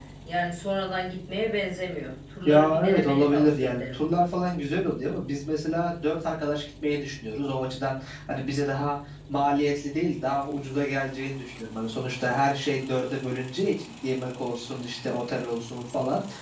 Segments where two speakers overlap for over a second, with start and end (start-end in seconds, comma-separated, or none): 2.4-4.0